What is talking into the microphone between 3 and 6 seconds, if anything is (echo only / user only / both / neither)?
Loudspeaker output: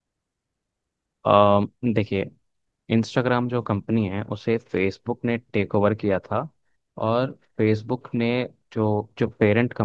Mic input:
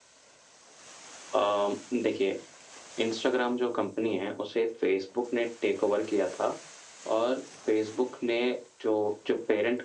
echo only